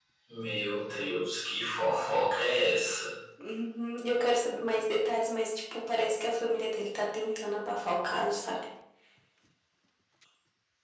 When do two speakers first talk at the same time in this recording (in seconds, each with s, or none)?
none